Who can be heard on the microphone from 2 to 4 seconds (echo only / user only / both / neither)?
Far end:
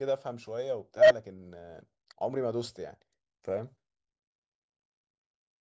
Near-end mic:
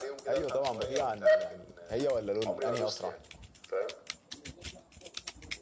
both